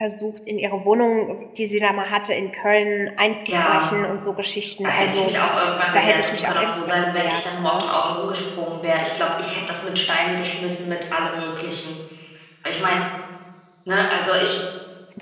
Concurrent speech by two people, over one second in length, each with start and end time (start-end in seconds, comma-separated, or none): 5.9-7.8